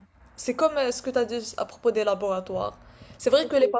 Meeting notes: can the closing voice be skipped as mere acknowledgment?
Yes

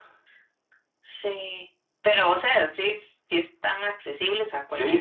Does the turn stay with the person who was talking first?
No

